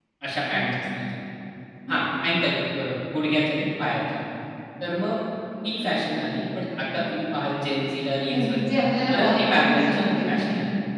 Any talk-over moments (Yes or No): Yes